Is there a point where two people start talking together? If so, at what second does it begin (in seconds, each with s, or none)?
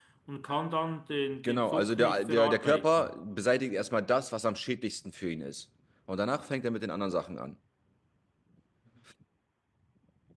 1.4 s